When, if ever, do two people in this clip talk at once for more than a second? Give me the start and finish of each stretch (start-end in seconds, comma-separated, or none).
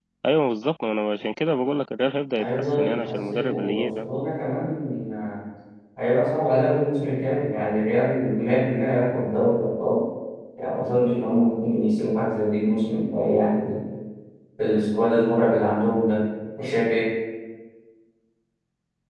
2.4-4.0